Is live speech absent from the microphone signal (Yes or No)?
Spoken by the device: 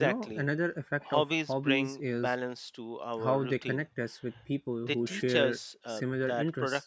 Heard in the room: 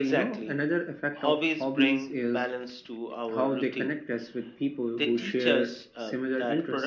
Yes